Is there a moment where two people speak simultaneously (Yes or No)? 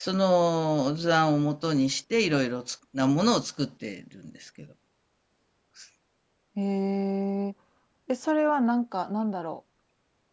No